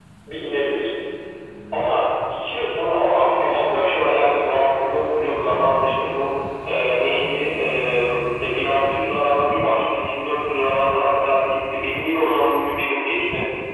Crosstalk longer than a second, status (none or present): present